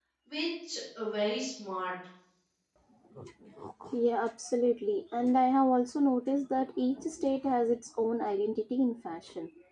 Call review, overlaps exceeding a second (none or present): none